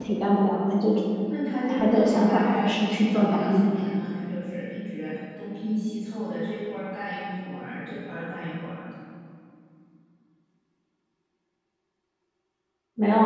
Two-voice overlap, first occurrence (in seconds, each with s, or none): 1.7 s